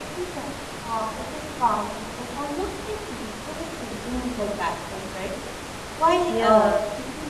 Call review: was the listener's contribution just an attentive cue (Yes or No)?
Yes